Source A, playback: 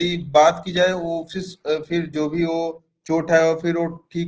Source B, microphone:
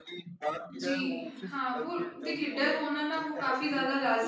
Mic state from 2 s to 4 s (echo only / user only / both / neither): both